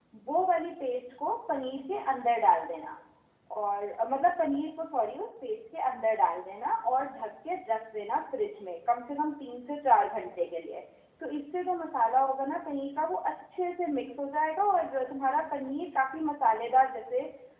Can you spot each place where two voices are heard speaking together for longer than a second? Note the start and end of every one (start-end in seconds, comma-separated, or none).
none